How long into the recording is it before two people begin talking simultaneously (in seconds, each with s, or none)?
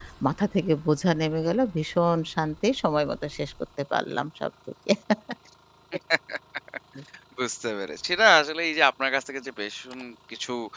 none